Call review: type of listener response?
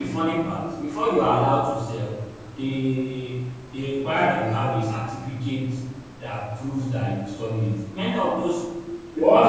taking over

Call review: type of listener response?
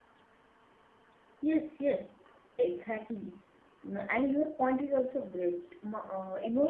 listening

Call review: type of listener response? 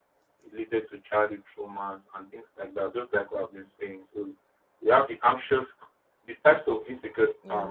listening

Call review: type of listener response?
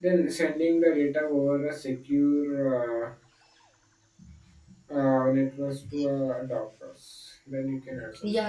taking over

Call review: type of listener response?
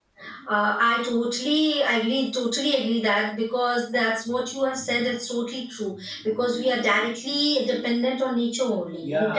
listening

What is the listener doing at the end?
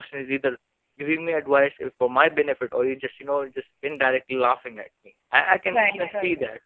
listening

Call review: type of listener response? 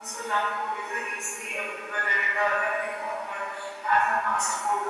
listening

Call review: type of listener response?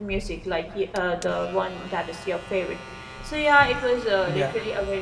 listening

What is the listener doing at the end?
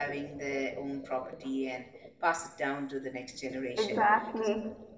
listening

